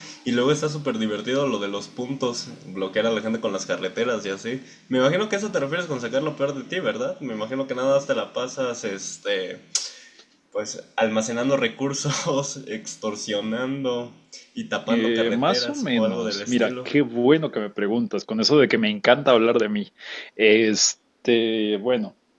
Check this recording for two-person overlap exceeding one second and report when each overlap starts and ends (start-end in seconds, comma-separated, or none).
14.9-16.9